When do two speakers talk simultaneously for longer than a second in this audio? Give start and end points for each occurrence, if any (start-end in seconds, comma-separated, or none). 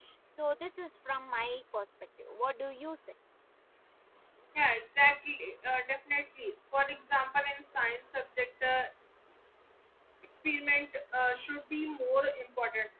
none